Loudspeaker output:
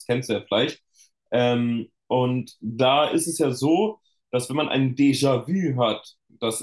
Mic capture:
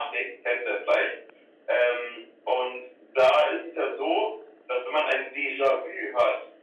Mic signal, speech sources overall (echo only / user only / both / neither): echo only